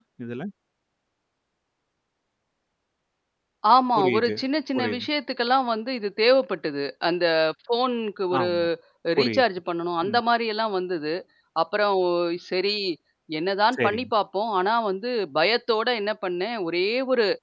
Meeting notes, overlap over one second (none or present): none